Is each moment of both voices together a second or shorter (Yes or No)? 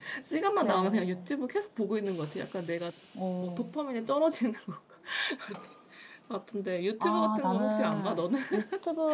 No